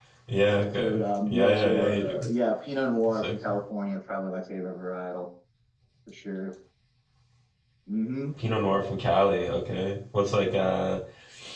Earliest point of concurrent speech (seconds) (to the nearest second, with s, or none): 1 s